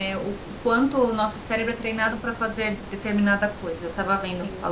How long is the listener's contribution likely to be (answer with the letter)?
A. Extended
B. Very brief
B